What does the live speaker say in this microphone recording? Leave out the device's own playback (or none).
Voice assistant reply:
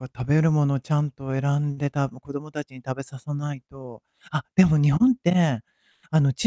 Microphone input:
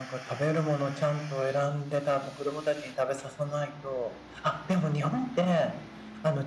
none